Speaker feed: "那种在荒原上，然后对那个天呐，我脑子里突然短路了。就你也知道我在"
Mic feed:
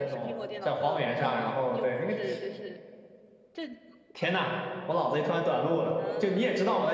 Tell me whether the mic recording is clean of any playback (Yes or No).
No